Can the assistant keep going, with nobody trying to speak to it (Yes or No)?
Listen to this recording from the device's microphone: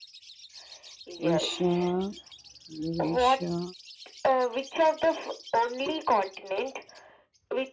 No